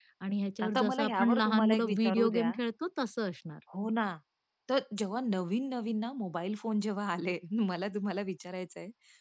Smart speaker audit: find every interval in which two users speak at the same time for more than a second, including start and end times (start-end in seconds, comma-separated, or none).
0.6-2.5